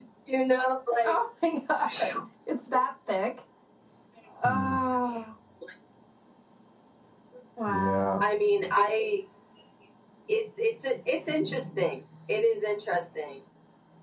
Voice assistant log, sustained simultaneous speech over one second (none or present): none